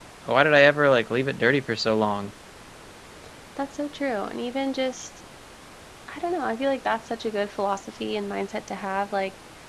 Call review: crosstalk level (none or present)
none